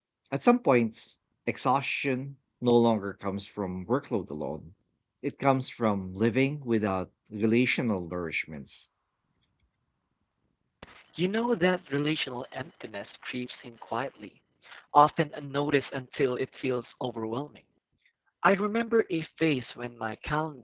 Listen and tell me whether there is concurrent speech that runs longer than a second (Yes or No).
No